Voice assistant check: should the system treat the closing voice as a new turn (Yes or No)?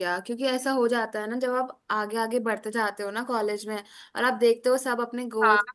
No